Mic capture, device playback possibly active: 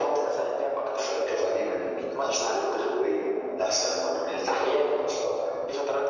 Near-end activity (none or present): none